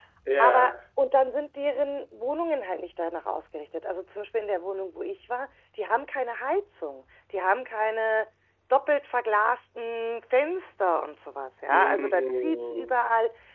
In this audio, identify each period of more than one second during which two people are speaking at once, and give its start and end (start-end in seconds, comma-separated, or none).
11.7-13.0